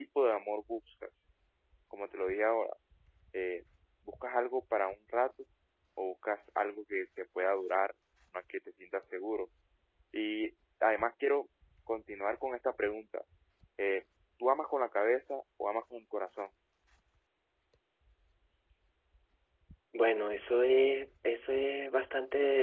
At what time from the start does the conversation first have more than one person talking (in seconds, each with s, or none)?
none